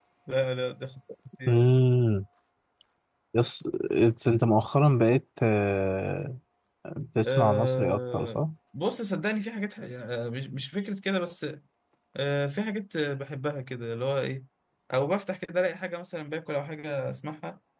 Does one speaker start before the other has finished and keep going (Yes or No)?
Yes